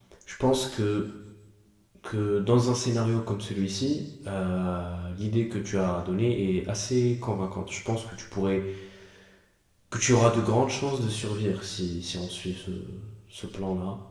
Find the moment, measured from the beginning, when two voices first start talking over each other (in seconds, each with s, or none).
none